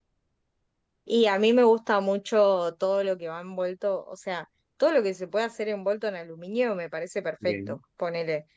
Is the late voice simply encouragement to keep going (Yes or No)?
Yes